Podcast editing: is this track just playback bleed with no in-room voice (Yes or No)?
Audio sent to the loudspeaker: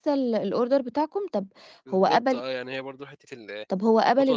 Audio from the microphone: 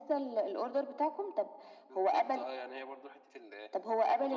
Yes